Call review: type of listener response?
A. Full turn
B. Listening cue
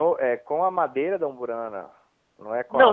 A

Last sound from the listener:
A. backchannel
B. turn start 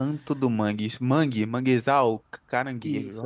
B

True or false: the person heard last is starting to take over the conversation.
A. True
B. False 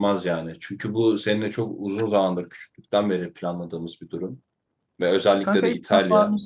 A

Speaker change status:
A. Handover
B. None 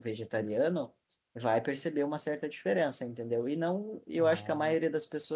B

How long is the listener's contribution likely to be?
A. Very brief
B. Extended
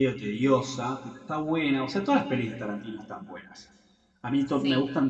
A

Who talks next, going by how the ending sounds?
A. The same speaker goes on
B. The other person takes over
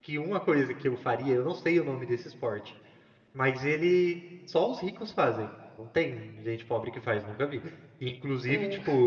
A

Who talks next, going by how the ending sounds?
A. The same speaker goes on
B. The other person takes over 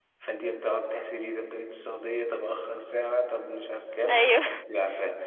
A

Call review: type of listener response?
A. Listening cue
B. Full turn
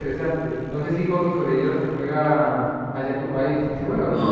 B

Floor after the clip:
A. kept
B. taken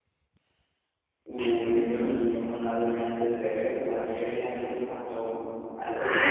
B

